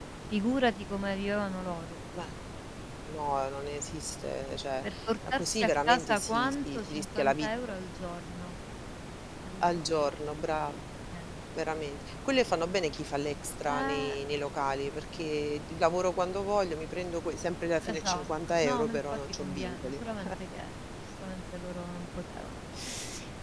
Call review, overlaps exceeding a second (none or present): present